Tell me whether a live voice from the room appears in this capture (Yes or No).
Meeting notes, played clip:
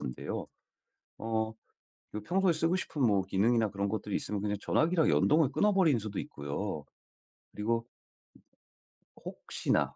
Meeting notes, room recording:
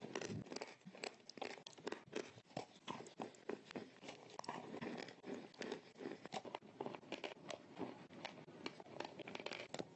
No